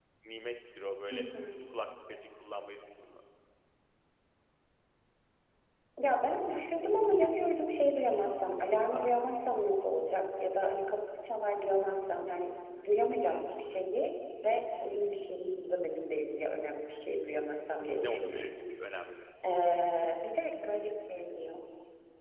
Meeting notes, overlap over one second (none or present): none